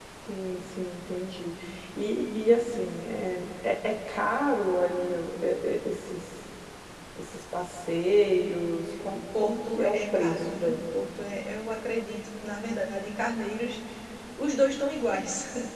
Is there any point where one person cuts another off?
Yes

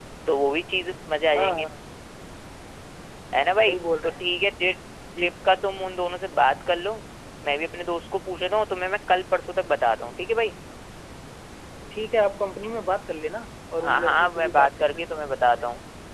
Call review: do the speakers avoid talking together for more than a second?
No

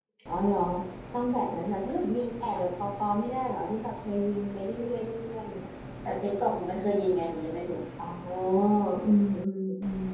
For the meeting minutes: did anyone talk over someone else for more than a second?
No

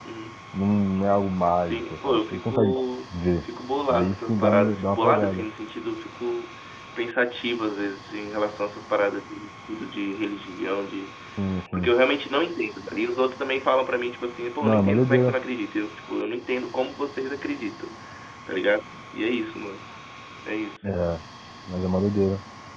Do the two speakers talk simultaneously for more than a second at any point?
Yes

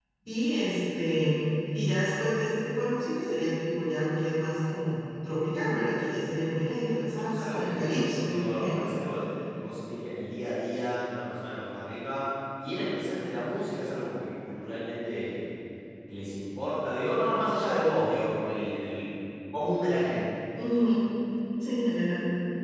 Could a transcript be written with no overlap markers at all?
No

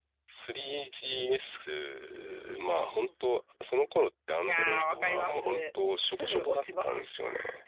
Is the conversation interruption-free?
No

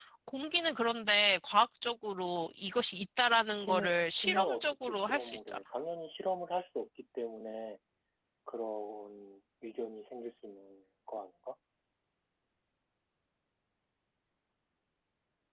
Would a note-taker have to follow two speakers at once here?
Yes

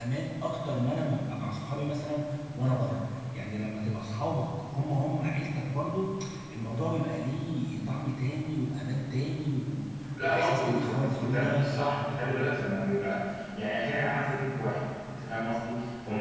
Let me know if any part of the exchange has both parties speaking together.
Yes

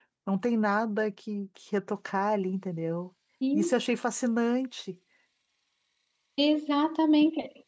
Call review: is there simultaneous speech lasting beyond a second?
No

